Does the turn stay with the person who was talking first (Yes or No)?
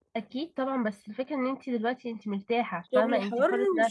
No